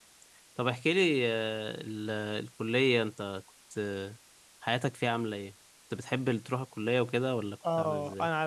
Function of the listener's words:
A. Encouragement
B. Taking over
B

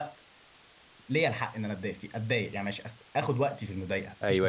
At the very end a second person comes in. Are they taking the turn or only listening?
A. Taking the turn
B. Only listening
A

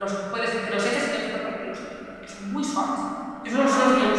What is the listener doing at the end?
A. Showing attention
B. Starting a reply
A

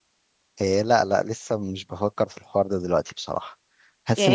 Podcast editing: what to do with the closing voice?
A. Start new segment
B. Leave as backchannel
A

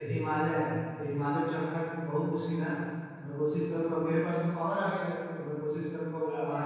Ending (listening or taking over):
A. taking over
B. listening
B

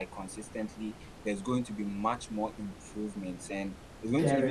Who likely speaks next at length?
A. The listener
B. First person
B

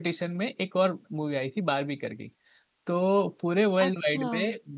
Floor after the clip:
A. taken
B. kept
B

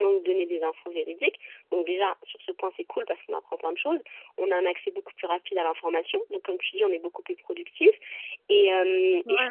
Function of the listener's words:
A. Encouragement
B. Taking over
A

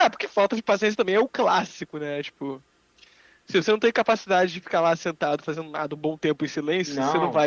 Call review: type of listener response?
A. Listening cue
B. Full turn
B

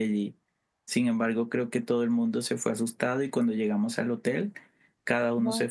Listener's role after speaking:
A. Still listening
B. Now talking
A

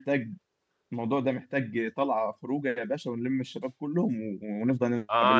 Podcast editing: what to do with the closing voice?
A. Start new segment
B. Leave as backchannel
A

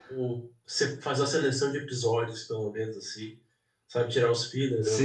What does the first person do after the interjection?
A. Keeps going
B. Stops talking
B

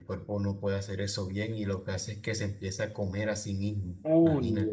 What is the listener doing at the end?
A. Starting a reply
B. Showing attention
A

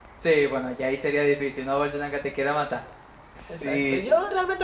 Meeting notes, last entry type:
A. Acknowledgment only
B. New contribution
B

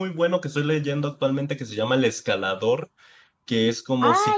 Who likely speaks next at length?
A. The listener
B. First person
A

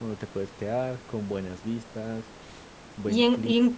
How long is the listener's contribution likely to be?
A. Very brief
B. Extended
B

